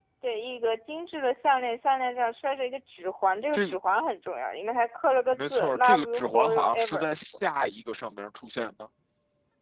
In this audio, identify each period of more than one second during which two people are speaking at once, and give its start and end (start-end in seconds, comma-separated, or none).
5.4-7.0